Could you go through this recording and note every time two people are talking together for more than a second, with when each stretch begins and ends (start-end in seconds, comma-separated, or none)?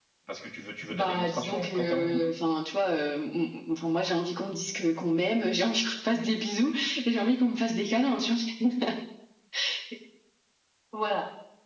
0.9-2.3